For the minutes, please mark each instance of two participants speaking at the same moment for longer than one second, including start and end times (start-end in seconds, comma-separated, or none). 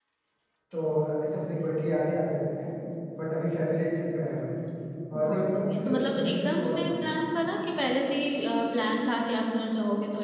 5.2-7.1